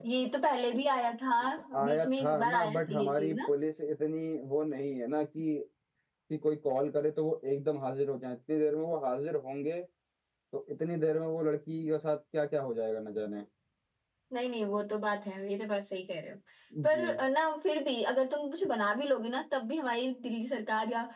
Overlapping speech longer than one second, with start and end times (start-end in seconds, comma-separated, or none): 1.8-3.5